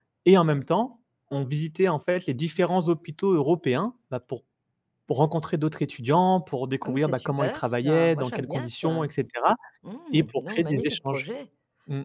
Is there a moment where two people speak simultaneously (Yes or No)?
Yes